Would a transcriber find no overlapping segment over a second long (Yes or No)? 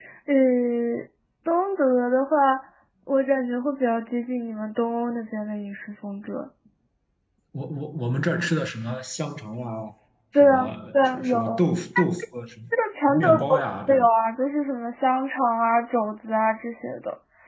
No